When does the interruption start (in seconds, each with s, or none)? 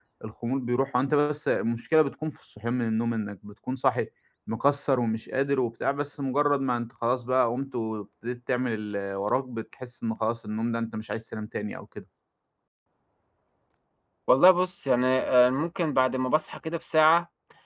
none